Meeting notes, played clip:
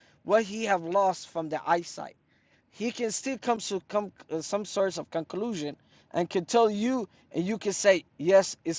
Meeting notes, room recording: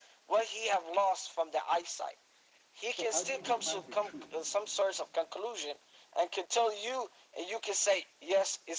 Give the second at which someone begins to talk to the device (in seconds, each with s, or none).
2.8 s